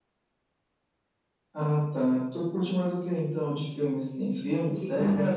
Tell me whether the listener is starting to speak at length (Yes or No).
Yes